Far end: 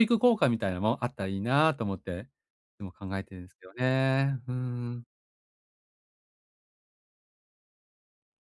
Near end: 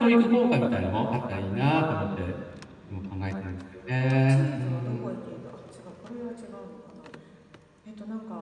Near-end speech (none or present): present